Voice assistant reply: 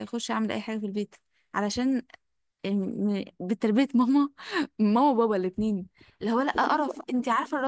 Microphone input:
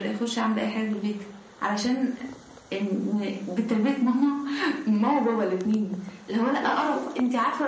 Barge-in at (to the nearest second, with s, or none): none